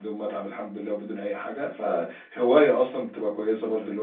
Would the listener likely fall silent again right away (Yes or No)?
No